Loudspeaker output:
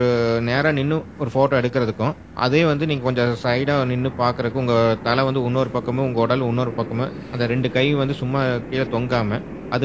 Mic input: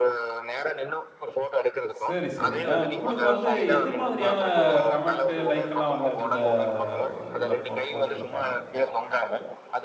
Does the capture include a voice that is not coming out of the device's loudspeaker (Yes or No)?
Yes